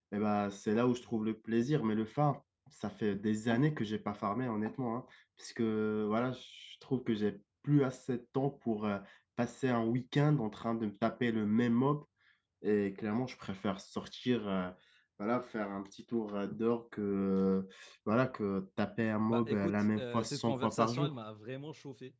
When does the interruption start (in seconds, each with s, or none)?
19.3 s